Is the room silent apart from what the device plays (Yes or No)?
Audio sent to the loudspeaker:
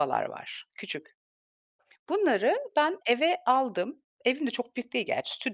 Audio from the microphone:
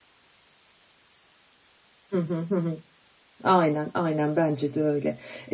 No